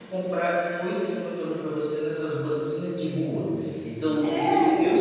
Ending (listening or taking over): listening